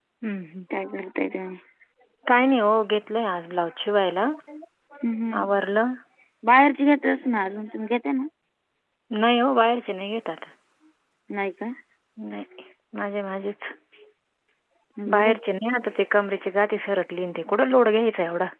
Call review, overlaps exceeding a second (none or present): none